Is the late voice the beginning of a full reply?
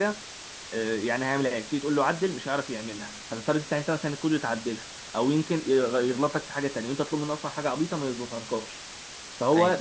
No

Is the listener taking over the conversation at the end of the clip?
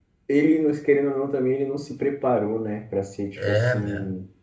Yes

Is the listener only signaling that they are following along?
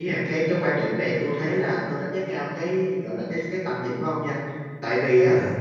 Yes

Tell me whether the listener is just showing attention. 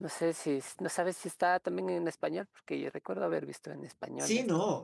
No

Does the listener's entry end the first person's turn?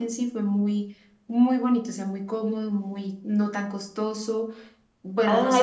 Yes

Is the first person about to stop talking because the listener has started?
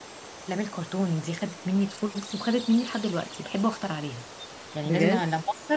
No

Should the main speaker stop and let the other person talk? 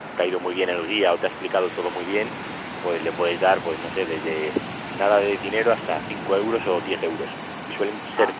No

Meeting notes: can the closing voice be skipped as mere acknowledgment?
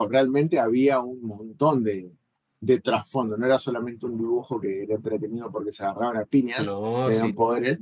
Yes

